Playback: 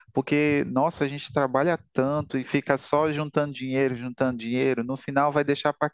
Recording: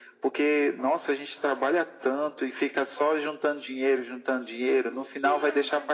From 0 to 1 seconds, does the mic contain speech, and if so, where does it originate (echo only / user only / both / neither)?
echo only